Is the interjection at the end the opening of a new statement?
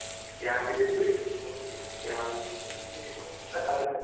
Yes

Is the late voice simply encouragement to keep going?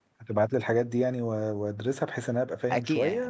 No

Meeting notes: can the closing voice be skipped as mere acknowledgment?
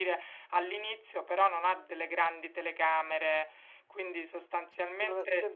No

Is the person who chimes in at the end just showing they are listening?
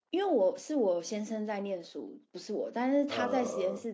Yes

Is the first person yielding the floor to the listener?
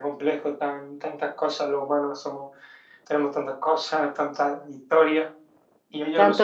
No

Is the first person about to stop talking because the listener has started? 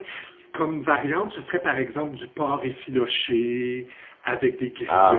No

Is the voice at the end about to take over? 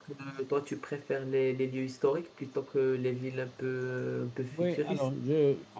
Yes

